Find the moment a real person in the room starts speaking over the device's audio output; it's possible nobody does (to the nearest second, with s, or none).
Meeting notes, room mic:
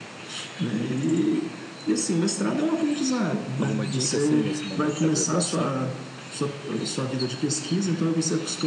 4 s